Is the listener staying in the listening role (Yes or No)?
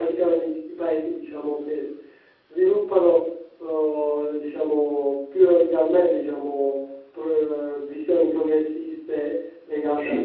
Yes